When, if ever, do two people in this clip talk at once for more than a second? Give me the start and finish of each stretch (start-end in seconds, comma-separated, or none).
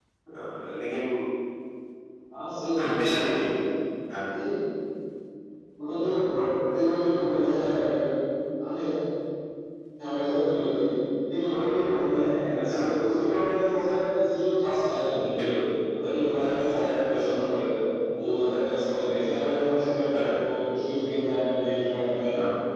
none